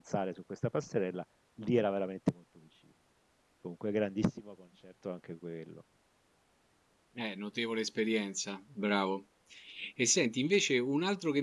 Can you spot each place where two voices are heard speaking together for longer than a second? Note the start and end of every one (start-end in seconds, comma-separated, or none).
none